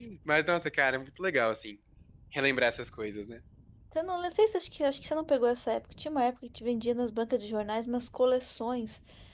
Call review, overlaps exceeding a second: none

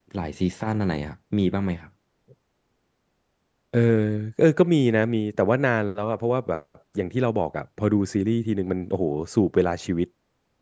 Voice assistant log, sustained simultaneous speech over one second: none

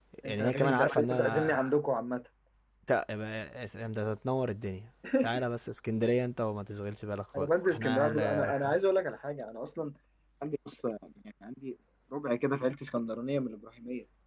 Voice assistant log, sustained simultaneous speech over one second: present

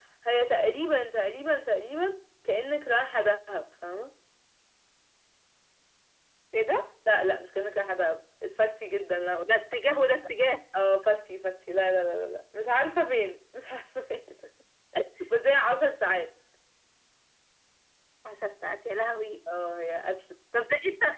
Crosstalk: none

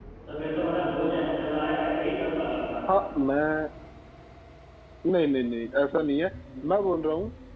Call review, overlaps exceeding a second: none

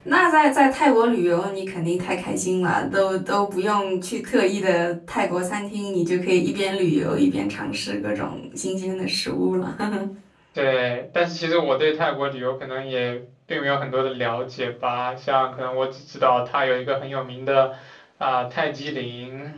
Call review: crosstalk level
none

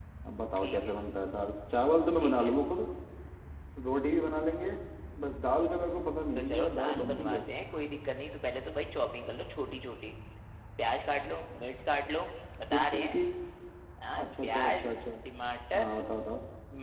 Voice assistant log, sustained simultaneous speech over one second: present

